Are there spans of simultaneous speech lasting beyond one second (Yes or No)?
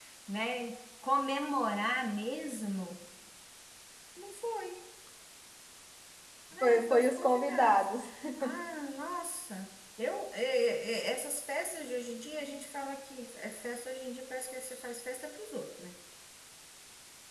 Yes